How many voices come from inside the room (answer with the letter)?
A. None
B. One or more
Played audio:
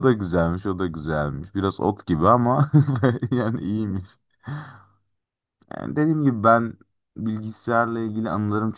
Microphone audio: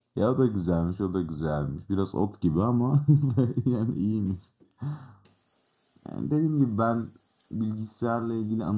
A